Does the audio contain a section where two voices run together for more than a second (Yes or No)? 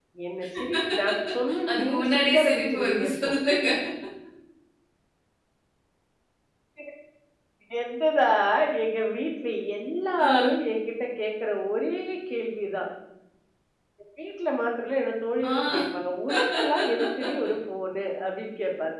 Yes